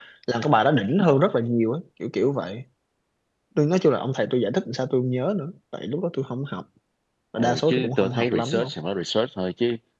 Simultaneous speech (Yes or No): Yes